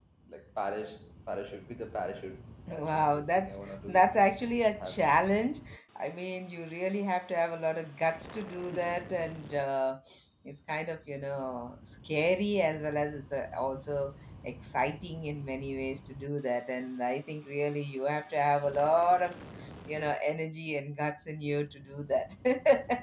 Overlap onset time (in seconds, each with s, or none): 2.7 s